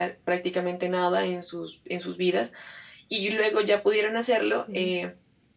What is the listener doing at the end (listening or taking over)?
listening